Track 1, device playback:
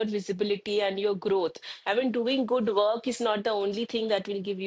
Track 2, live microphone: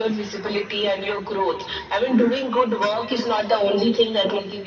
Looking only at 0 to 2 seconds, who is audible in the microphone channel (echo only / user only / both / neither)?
echo only